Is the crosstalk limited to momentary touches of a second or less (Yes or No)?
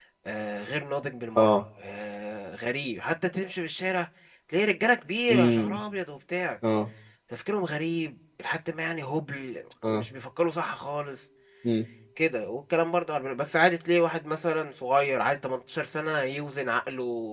Yes